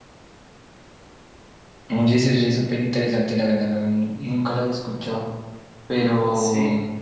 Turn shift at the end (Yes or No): No